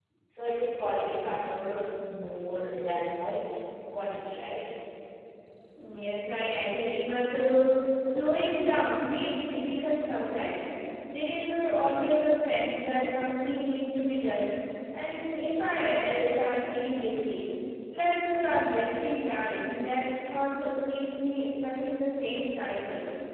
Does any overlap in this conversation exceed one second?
No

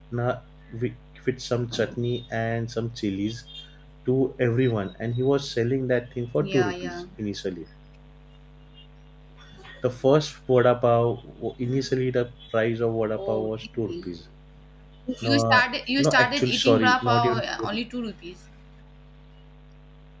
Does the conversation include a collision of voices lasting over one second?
Yes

